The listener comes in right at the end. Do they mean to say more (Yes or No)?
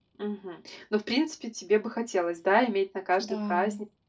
No